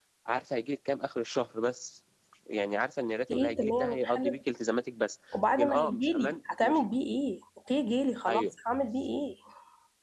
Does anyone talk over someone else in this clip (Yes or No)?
Yes